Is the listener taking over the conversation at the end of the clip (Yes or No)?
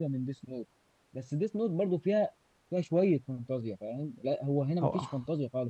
No